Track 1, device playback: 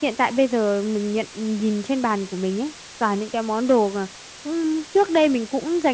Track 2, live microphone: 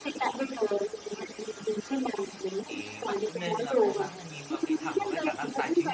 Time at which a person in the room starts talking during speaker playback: 2.7 s

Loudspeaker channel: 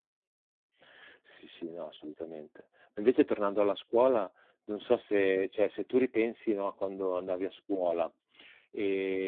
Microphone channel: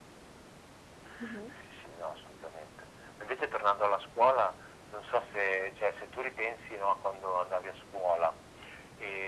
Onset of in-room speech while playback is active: 1.2 s

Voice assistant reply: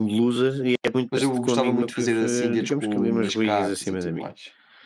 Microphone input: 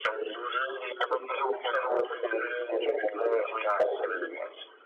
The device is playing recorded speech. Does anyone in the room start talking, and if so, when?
none

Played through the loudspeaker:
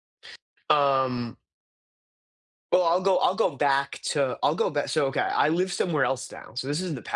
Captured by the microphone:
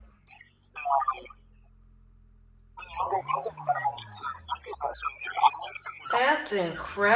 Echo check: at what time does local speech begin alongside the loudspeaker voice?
6.1 s

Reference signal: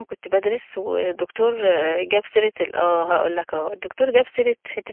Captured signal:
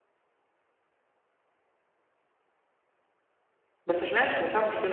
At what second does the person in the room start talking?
3.9 s

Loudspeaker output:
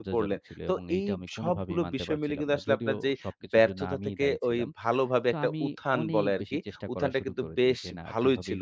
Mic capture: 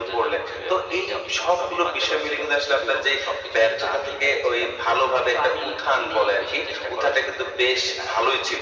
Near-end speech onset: none

